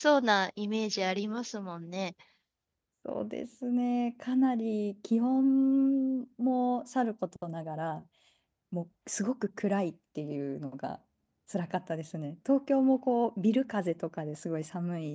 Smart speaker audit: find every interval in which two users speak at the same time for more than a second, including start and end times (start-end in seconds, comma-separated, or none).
none